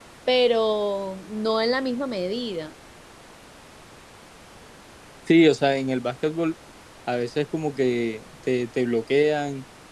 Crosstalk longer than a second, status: none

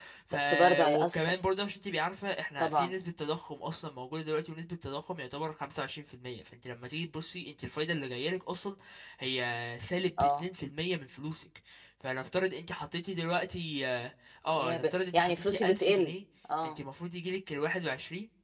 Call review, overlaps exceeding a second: present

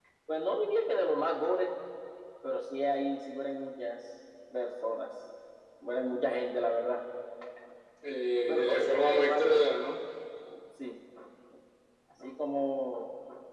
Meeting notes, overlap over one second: present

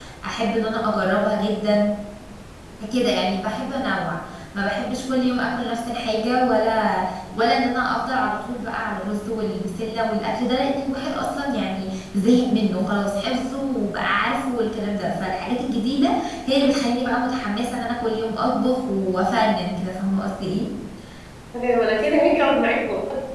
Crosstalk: none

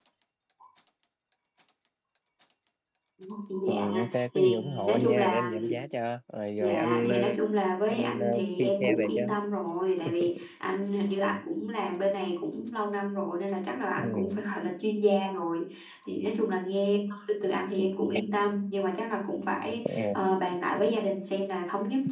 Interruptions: present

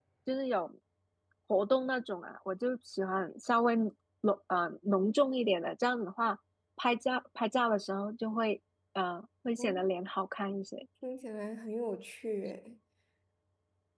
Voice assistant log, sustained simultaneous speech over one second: none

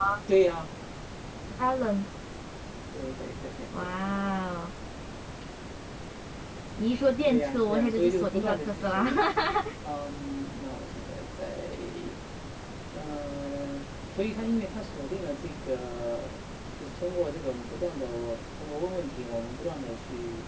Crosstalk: present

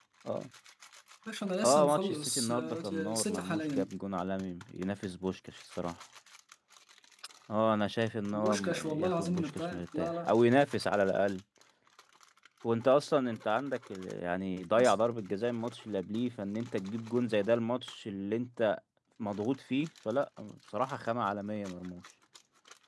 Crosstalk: present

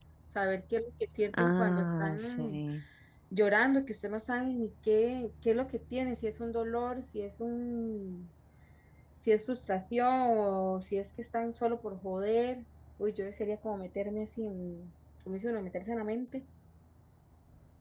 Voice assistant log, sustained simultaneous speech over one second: present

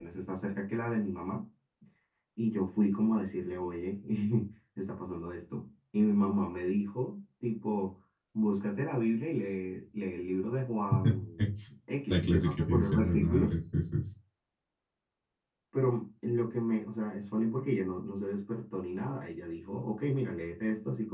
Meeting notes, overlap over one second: present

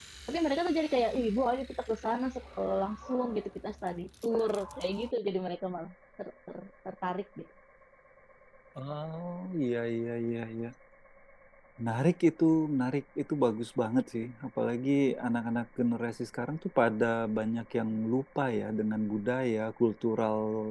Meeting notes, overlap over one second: none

